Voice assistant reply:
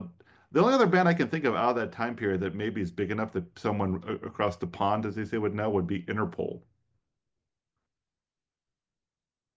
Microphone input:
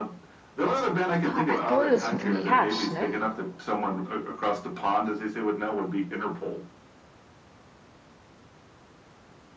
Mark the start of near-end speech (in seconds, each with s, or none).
1.2 s